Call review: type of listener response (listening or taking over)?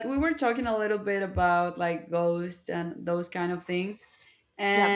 listening